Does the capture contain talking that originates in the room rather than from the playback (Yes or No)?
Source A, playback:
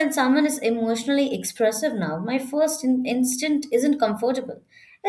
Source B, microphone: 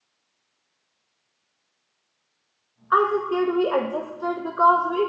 Yes